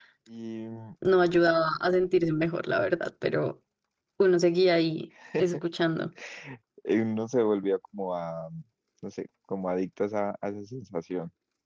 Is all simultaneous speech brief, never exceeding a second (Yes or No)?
Yes